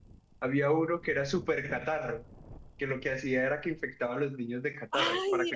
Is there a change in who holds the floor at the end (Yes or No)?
Yes